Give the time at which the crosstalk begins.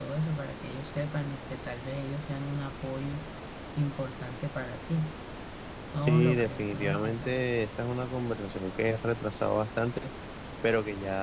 6.0 s

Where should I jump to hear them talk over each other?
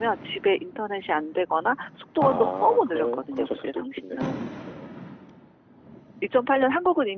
2.2 s

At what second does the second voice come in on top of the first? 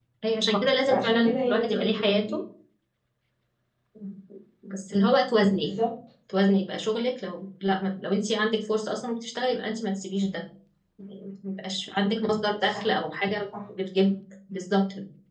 0.9 s

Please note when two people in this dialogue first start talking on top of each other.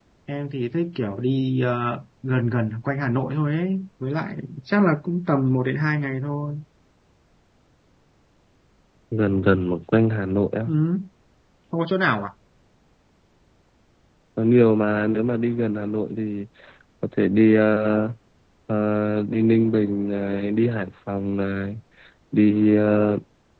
none

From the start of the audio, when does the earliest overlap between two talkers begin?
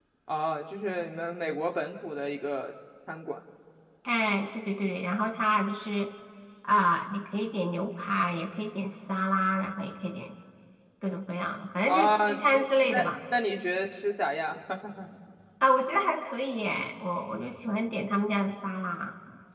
11.9 s

